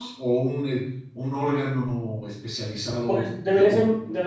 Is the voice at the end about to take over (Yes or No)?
Yes